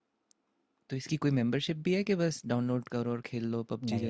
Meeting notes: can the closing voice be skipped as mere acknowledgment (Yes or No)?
No